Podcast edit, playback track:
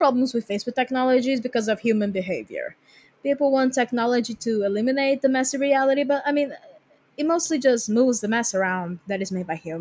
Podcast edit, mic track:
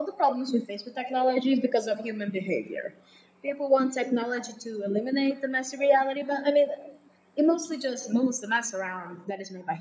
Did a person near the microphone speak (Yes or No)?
No